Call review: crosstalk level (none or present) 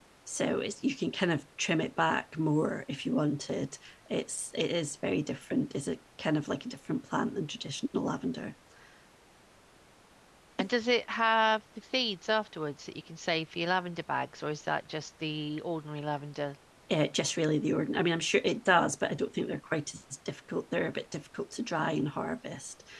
none